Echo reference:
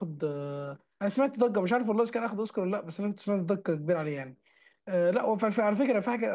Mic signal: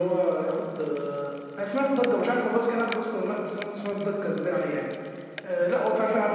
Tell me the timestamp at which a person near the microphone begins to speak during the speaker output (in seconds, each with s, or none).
none